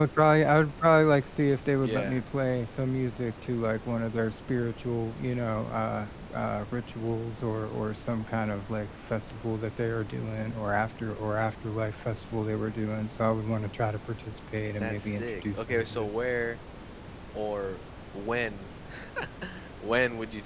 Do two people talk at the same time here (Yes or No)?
Yes